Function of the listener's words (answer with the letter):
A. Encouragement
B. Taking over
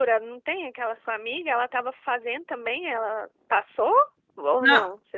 B